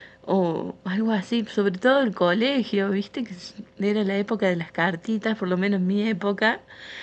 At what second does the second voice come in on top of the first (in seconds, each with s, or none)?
none